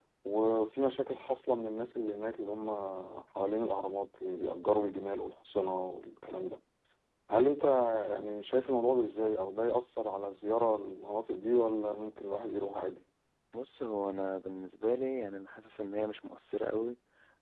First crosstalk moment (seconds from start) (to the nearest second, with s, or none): none